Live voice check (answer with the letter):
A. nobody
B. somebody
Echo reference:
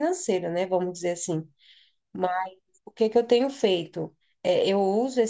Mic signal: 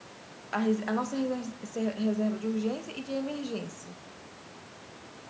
B